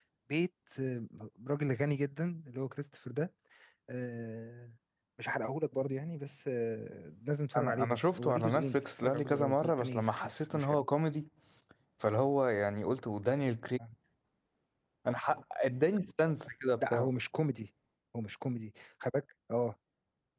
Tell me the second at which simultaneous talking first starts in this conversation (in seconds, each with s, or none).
7.6 s